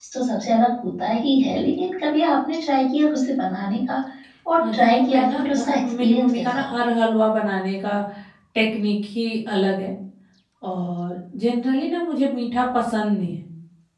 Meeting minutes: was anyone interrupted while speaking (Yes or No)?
Yes